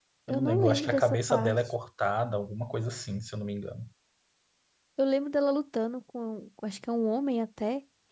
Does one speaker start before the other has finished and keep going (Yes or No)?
Yes